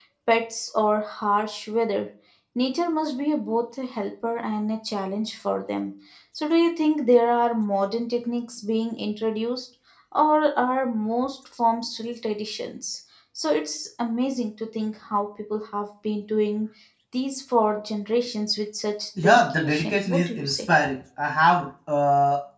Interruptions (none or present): present